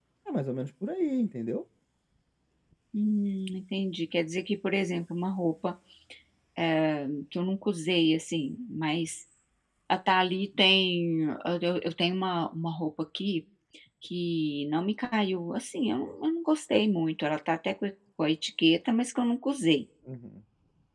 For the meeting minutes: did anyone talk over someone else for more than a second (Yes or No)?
No